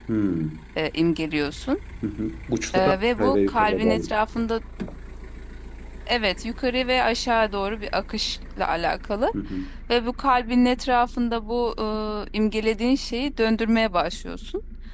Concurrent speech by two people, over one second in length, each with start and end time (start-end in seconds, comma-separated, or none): 2.7-4.0